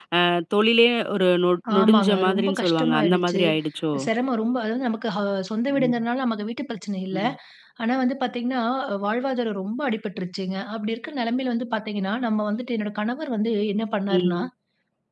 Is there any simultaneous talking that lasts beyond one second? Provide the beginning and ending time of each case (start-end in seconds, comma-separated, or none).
1.8-3.4